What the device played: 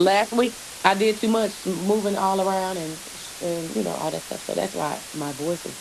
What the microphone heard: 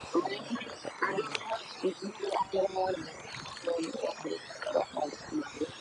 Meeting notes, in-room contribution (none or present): none